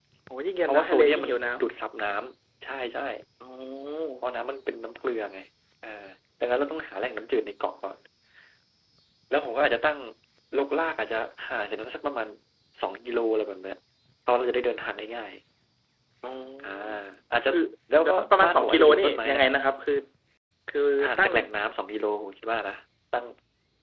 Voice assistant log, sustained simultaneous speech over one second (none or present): present